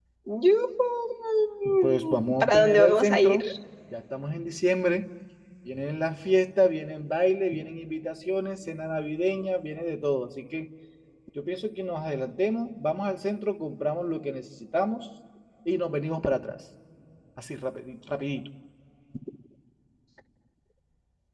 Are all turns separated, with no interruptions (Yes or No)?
No